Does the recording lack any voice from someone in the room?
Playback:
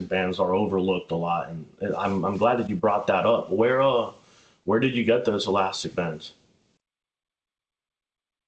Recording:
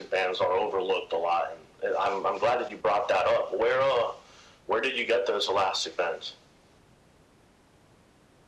Yes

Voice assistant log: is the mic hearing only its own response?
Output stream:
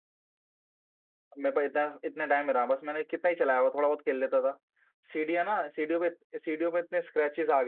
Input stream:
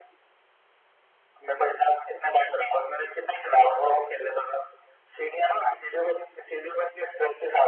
Yes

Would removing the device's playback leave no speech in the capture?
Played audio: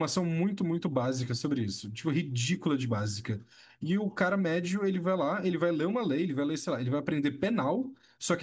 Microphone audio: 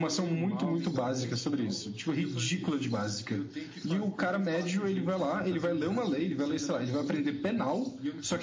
No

